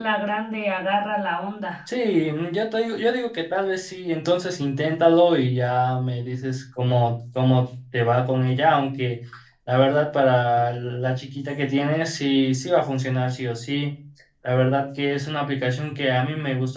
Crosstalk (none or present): none